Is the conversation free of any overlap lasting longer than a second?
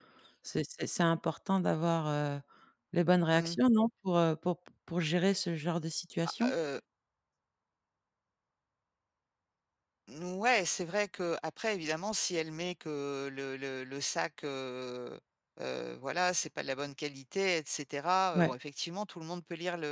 Yes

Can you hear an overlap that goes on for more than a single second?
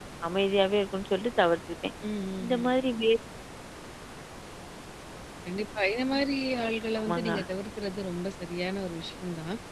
No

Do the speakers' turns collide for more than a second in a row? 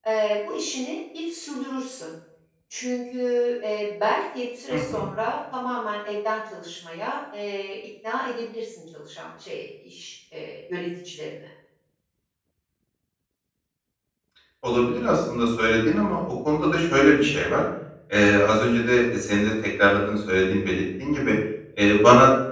No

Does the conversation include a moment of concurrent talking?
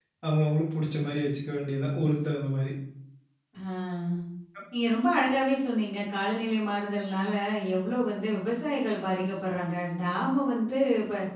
No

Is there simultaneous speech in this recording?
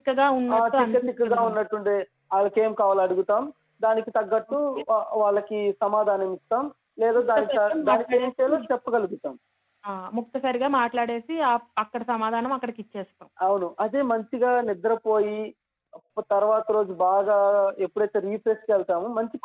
Yes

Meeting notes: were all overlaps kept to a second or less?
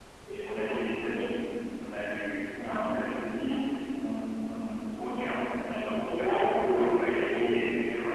No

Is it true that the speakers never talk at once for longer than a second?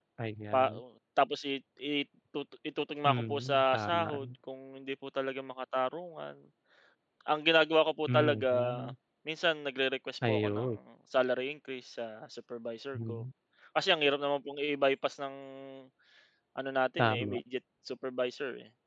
No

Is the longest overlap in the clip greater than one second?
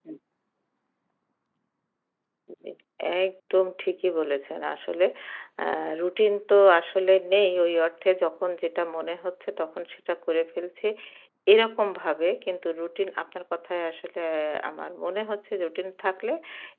No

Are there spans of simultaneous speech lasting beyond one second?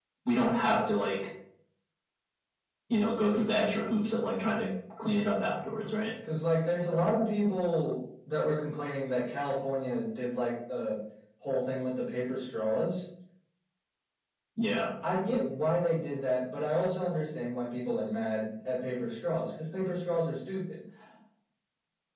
No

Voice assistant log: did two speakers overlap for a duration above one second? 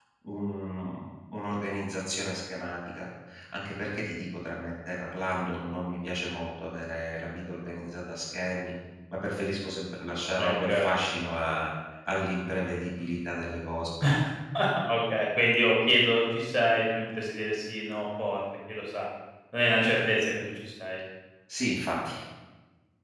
No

